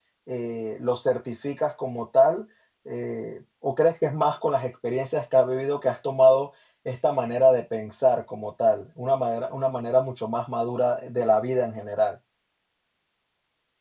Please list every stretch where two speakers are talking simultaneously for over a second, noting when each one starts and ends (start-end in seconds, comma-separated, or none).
none